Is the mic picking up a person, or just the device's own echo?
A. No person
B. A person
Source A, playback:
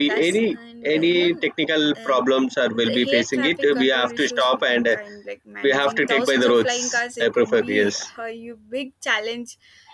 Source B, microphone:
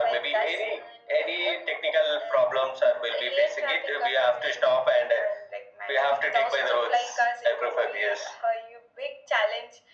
A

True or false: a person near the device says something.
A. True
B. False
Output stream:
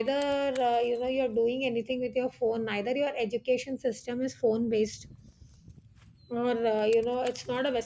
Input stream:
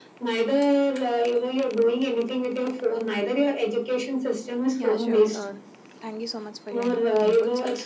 A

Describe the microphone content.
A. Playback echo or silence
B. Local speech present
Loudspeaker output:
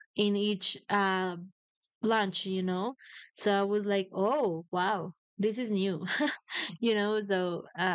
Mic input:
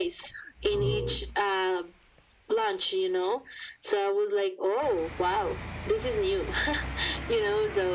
B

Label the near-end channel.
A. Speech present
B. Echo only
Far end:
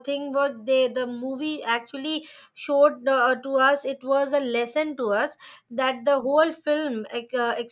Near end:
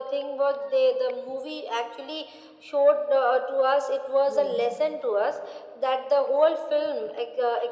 A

